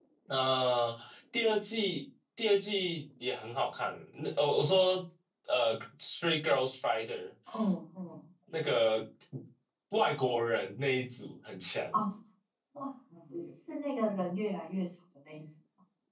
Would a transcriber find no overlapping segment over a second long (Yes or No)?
Yes